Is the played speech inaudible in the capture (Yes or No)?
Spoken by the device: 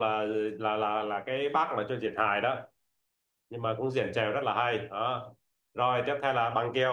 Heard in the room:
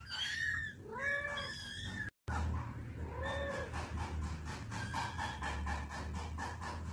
Yes